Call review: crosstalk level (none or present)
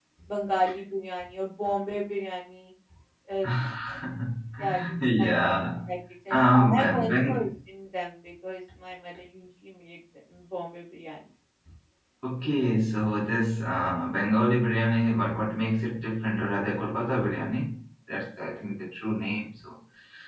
present